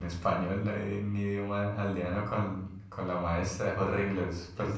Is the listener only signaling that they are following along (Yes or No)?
No